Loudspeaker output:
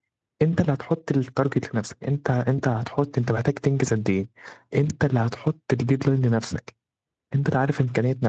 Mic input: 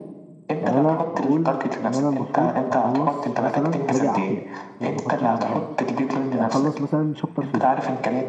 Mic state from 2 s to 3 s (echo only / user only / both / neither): both